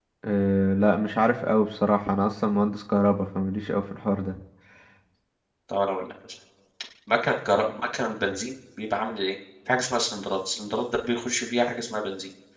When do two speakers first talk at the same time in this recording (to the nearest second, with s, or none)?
none